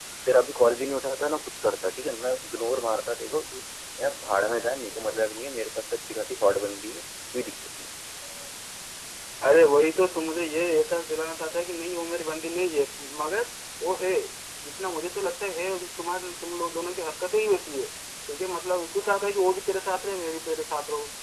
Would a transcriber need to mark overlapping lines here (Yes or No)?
No